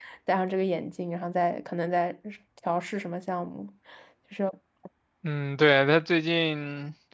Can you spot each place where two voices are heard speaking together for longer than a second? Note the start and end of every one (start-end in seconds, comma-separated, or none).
none